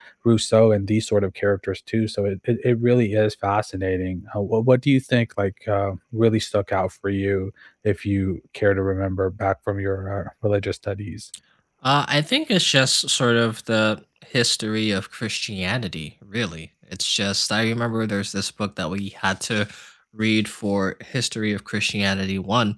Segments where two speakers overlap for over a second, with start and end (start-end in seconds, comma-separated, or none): none